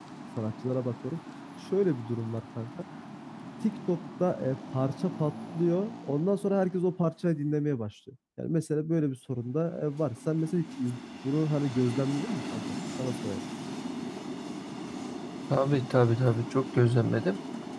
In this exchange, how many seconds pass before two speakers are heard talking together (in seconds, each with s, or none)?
none